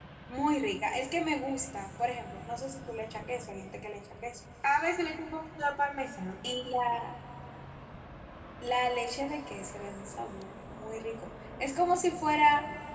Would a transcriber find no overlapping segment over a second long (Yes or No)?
Yes